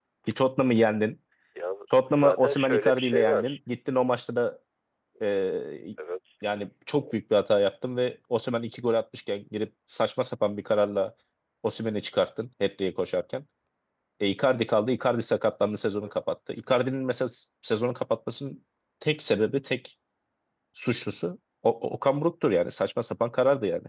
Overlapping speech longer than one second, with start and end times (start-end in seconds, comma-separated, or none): 2.0-3.6